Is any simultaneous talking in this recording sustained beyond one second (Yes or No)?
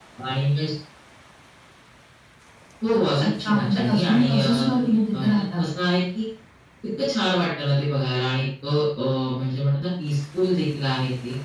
Yes